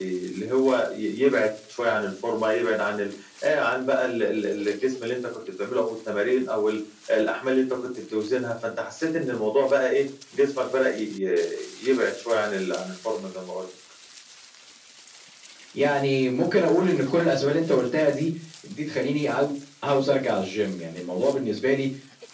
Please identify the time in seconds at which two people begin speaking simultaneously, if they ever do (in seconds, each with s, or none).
none